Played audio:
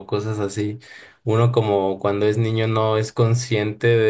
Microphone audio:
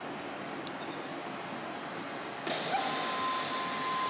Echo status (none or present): none